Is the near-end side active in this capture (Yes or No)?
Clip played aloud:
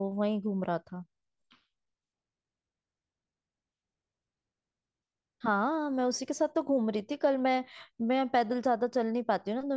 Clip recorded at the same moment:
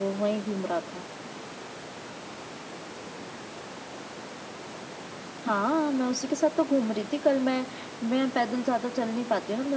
No